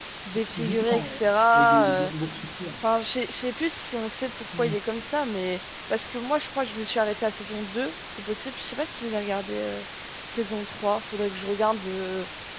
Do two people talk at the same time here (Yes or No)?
Yes